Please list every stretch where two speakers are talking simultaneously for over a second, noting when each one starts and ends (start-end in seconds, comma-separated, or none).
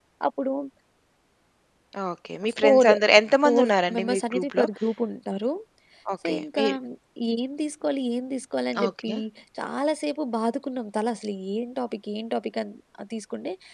3.4-4.6